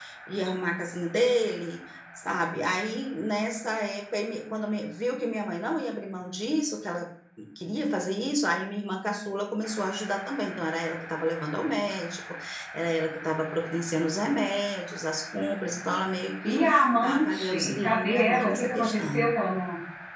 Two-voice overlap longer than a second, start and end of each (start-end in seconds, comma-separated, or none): 16.5-19.2